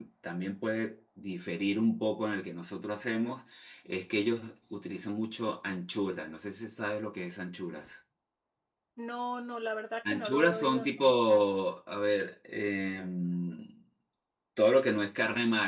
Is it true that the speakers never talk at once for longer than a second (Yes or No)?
No